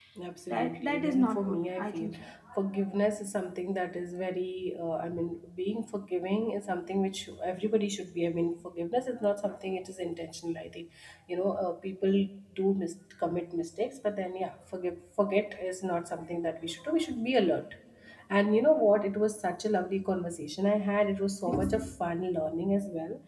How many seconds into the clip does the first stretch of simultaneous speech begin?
0.5 s

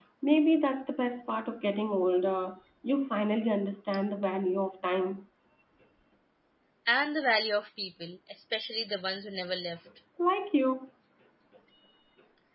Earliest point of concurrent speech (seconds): none

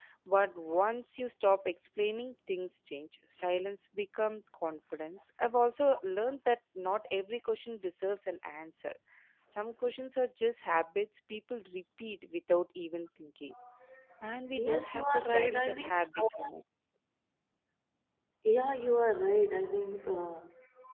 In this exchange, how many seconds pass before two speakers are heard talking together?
14.6 s

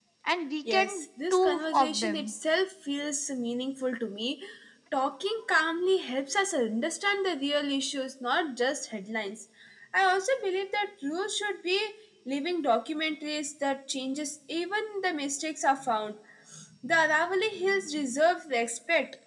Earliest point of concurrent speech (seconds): 0.7 s

